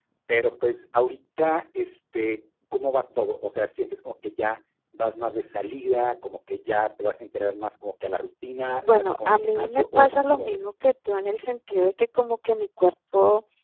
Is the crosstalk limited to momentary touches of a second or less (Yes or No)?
No